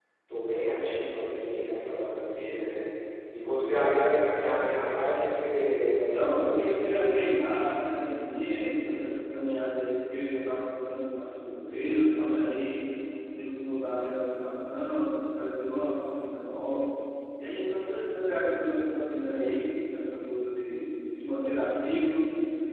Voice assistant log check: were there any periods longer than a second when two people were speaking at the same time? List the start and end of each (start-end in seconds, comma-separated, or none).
6.0-7.2